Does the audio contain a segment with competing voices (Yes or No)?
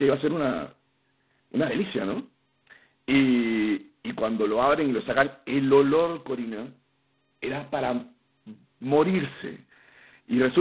No